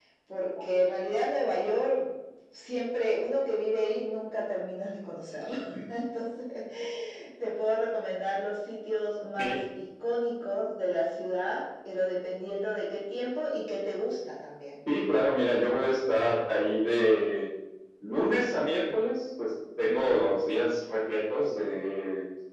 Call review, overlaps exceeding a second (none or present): none